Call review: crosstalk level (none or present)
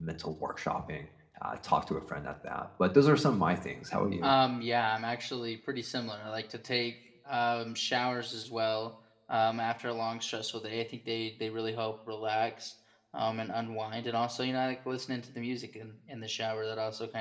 none